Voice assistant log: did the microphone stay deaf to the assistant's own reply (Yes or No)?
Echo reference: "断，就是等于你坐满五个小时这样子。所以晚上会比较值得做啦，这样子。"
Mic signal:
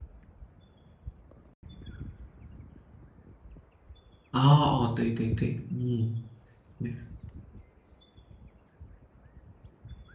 Yes